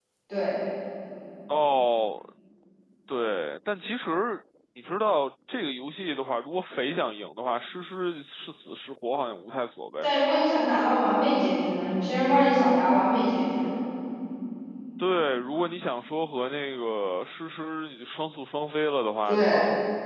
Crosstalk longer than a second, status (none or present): none